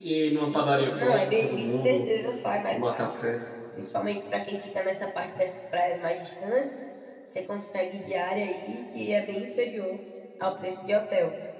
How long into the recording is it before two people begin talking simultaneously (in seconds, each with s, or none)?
0.5 s